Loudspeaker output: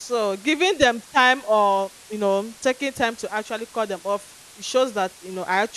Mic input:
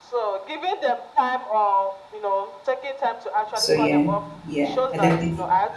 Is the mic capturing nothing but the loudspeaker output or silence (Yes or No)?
No